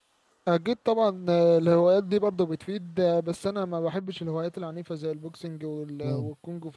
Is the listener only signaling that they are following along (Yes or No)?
Yes